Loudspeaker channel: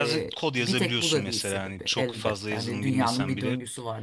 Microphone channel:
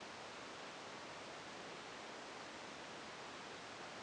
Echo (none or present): none